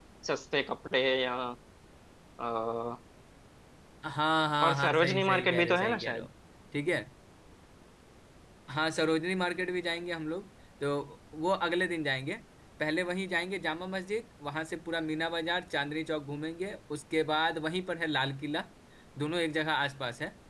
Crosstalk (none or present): present